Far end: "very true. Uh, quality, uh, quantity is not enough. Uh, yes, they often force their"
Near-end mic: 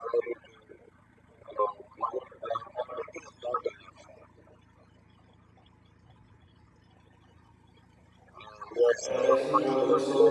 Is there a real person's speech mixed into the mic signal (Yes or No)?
Yes